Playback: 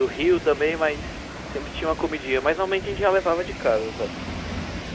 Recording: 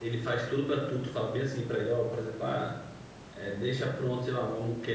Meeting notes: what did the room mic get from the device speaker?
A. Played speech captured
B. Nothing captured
B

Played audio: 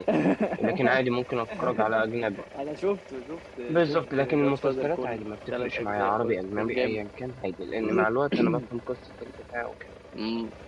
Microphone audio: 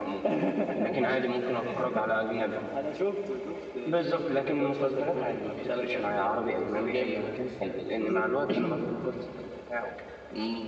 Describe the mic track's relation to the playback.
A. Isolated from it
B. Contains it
B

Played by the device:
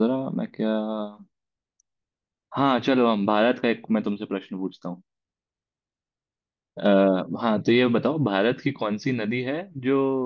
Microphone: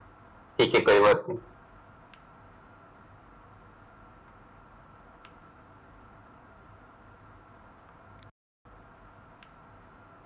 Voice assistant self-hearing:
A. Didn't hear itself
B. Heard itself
A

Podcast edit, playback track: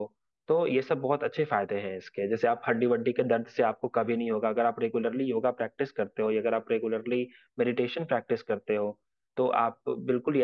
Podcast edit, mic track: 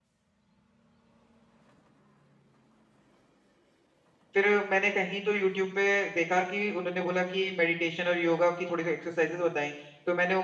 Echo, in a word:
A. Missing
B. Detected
A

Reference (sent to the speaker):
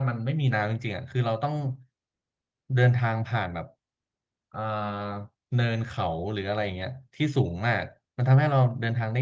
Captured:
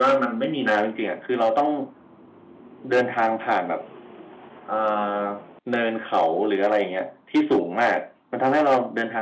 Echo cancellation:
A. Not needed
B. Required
B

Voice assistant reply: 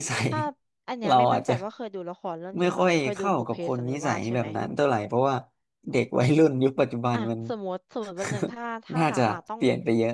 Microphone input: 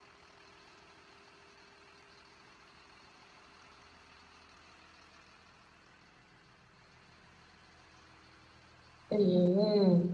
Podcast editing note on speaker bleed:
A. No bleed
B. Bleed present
A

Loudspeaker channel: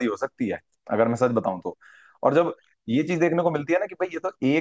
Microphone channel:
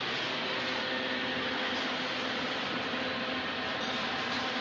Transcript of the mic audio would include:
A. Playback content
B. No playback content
B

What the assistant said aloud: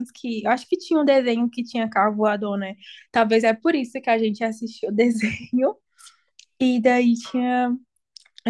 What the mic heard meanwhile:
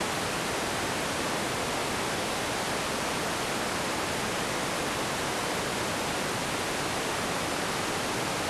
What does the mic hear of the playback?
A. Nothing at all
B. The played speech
A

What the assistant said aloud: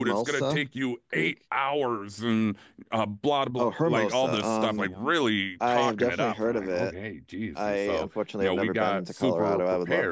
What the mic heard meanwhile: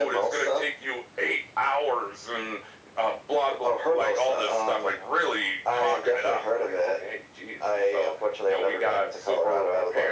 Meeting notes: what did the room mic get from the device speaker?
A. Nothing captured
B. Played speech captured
B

